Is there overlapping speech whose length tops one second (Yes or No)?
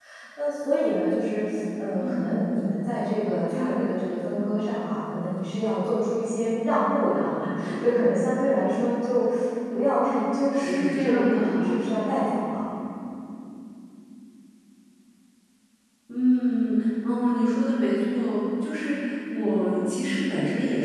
Yes